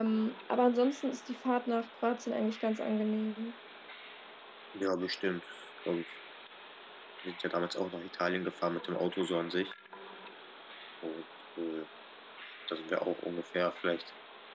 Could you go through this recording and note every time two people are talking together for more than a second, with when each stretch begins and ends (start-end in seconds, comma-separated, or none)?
none